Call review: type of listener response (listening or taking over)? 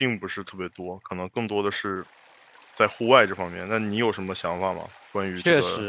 taking over